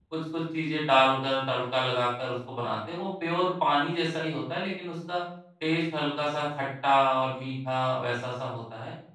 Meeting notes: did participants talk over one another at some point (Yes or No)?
No